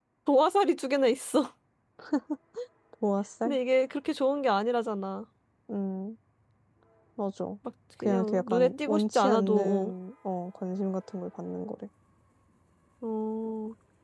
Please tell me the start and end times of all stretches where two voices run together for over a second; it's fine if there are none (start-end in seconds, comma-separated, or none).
8.0-9.9